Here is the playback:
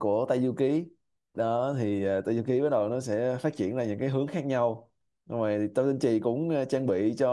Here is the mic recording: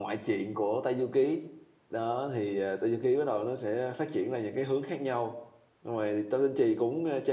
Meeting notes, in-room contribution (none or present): none